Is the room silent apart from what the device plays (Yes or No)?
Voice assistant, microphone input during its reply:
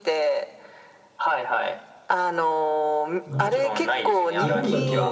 No